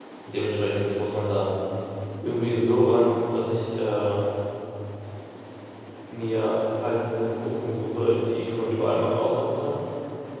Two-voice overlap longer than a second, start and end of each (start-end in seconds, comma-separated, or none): none